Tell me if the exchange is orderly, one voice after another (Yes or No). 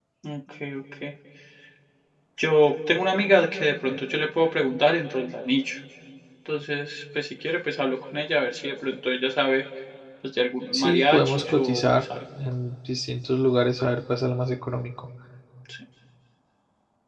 No